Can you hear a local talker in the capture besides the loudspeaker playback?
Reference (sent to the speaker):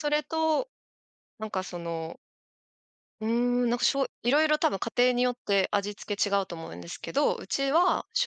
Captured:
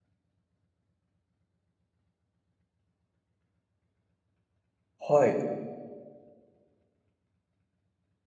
Yes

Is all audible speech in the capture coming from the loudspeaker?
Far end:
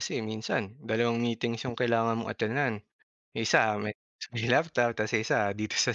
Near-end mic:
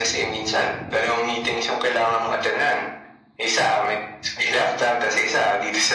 Yes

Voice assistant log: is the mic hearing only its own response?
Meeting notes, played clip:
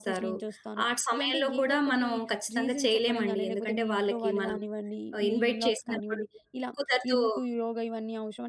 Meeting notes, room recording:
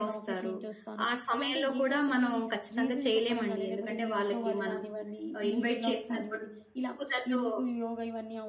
Yes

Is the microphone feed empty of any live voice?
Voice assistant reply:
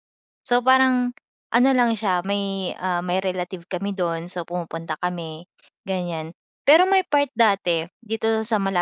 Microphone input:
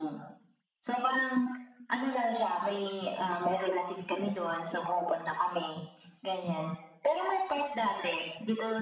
Yes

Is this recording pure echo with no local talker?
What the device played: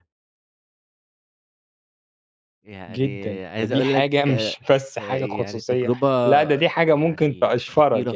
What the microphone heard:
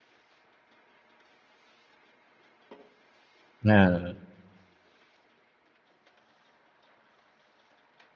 No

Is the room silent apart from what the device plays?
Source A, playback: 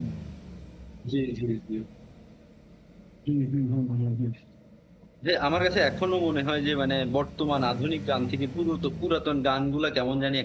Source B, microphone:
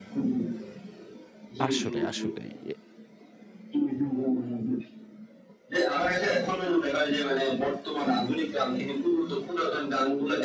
No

